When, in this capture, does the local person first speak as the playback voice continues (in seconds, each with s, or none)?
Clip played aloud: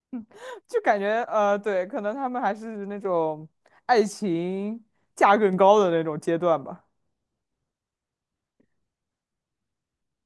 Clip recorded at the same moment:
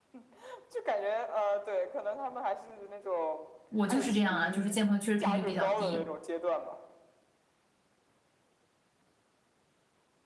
3.7 s